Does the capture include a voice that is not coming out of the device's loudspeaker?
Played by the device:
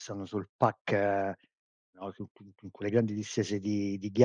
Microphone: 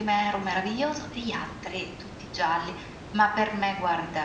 Yes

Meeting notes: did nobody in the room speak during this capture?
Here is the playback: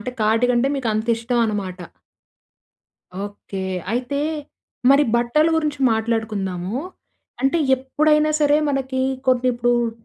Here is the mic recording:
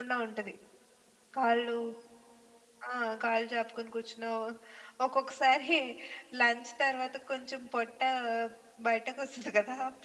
No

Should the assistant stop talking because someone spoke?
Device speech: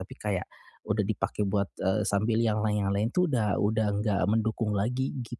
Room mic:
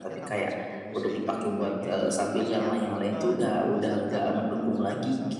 Yes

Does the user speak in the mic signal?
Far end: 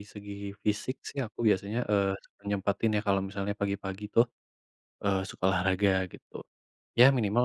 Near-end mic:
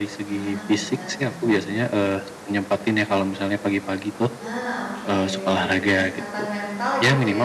Yes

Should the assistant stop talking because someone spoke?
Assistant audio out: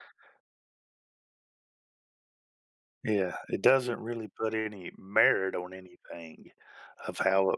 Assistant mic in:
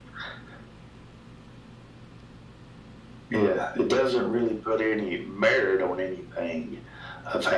No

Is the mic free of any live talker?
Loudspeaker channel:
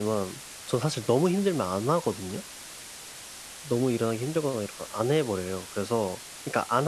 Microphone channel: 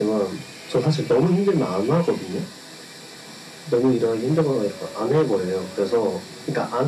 Yes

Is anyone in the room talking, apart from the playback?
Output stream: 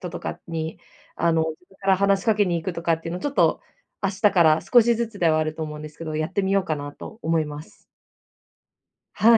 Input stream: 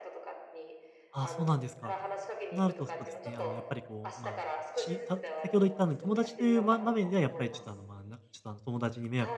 Yes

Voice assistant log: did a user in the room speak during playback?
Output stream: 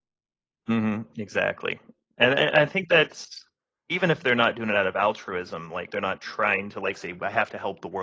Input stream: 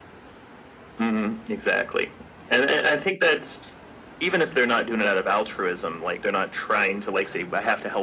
No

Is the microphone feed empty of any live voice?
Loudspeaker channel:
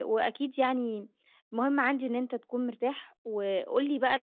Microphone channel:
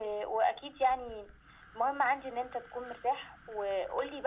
Yes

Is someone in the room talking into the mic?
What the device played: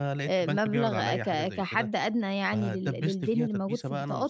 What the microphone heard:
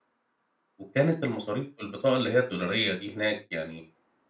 Yes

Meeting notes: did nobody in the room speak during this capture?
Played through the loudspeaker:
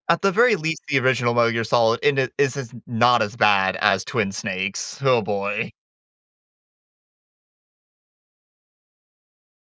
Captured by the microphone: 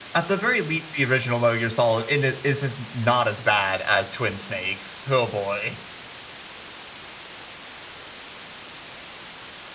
Yes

